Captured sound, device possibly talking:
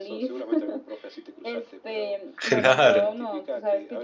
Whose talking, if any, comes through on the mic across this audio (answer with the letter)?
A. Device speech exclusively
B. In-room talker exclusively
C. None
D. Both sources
D